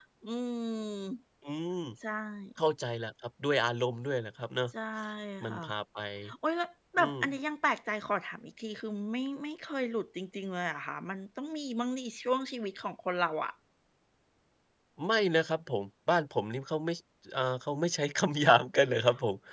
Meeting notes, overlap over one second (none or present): none